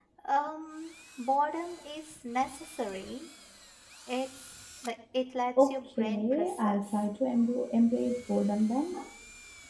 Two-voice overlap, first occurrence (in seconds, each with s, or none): 5.6 s